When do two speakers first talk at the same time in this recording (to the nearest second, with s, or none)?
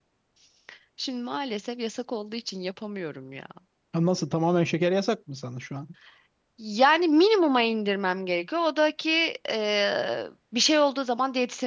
none